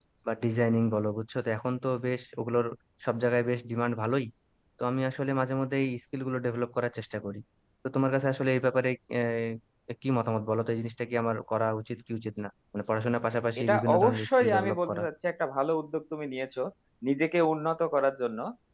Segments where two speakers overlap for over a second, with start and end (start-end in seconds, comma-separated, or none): 13.6-15.0